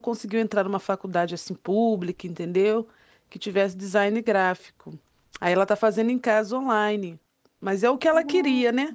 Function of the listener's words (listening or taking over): listening